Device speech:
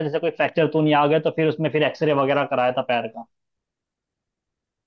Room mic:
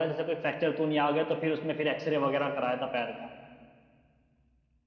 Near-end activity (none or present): none